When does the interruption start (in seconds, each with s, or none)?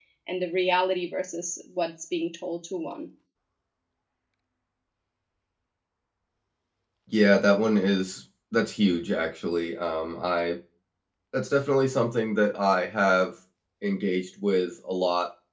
none